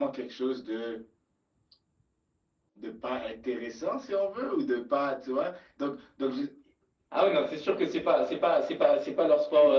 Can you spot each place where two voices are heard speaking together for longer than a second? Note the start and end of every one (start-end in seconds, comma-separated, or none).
none